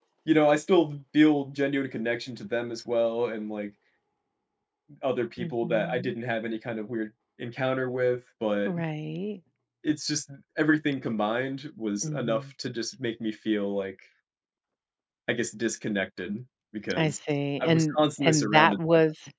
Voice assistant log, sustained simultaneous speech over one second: present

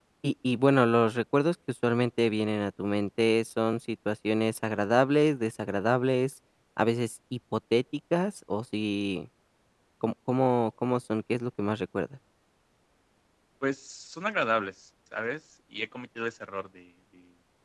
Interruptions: none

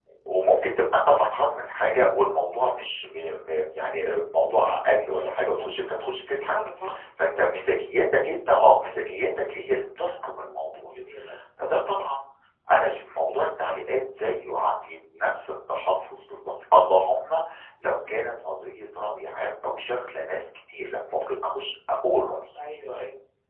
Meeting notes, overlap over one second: none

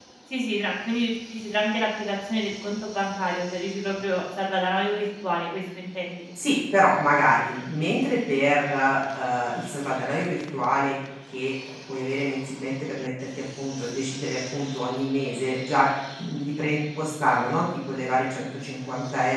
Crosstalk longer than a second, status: none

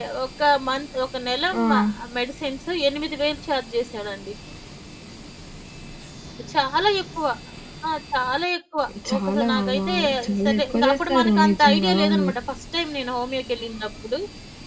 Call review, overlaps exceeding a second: present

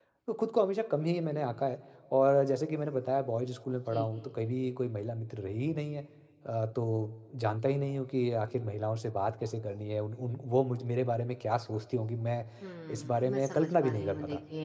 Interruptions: present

